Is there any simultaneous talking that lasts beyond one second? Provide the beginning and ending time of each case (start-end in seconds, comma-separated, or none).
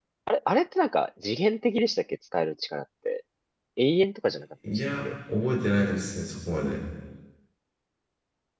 none